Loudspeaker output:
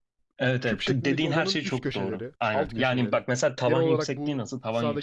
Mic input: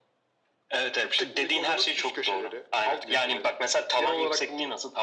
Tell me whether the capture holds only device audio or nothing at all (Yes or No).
Yes